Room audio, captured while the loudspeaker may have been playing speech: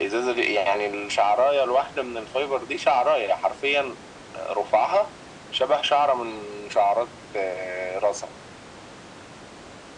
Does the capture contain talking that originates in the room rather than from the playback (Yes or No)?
No